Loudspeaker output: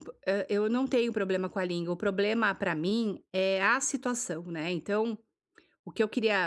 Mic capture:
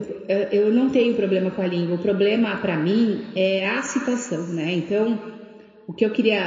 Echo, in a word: present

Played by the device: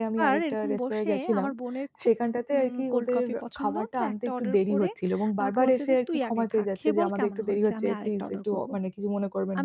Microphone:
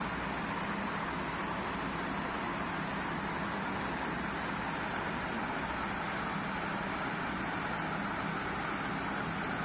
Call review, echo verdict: none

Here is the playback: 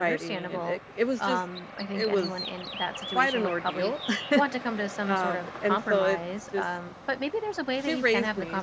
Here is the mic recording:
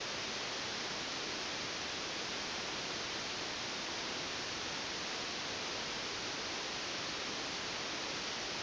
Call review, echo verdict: none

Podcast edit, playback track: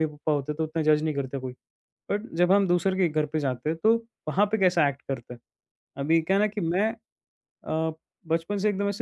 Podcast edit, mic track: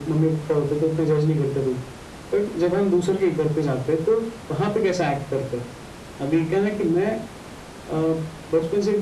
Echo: present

